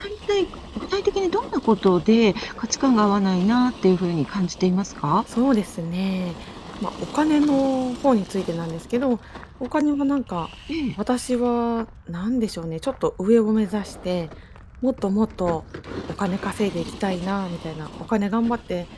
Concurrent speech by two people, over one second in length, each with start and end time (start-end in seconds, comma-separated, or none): none